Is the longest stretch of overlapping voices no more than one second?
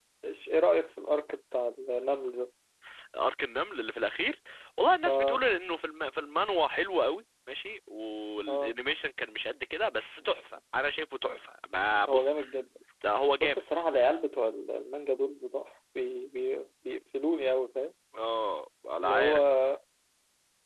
Yes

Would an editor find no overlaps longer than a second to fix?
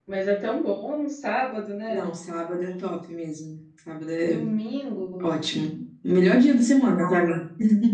Yes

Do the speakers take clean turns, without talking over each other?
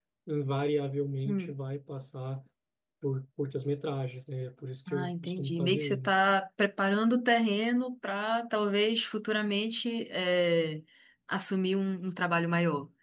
No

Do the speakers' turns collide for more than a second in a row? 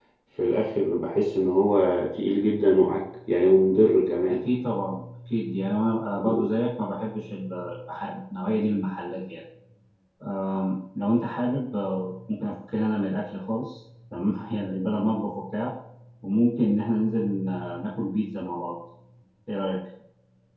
No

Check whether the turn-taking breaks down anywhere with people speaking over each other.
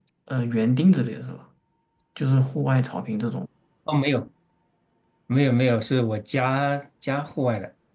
No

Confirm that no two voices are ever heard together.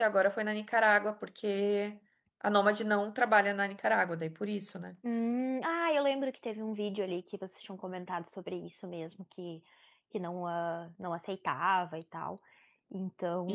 Yes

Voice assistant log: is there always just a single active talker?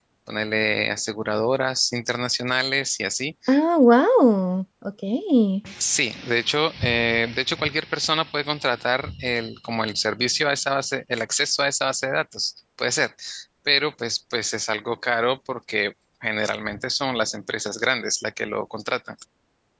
Yes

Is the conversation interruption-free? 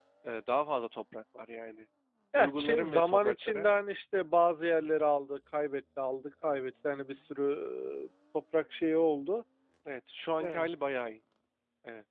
No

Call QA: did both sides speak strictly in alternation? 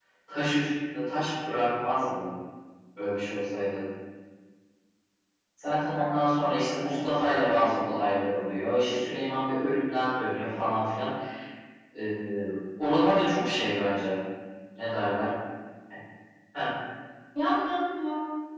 No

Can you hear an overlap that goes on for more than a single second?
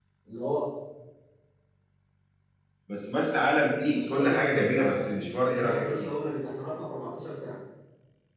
Yes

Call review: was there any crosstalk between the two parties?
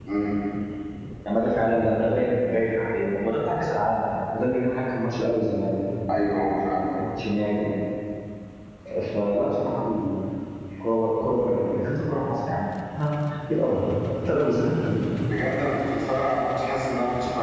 No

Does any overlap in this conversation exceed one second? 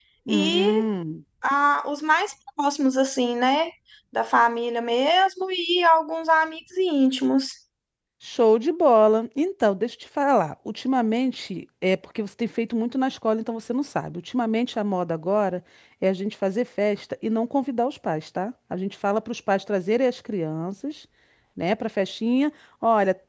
No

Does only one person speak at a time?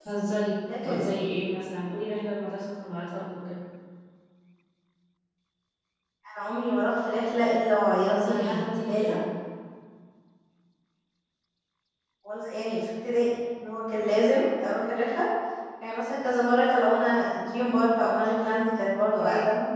No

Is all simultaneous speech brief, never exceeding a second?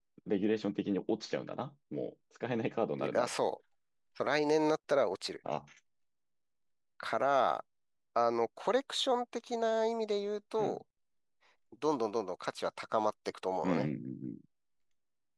Yes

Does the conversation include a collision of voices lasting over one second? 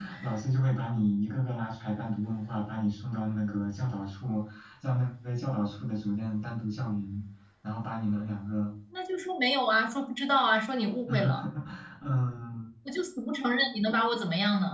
No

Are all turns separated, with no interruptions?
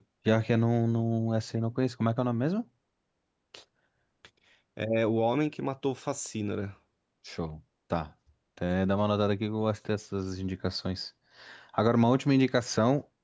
Yes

